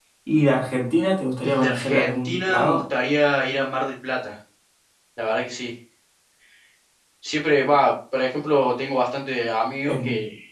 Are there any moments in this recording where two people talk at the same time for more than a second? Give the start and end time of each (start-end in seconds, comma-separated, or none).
1.4-2.8